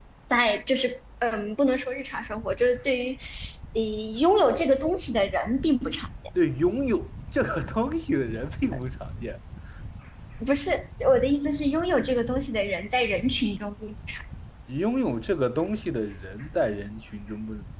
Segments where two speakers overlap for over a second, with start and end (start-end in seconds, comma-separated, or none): none